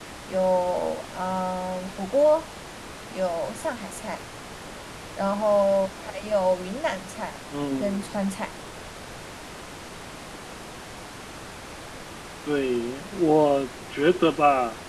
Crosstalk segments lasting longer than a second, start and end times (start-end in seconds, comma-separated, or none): none